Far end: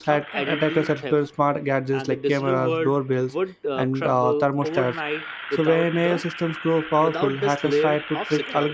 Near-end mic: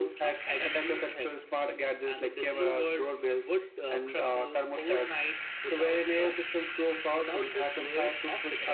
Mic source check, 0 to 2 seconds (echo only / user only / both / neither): echo only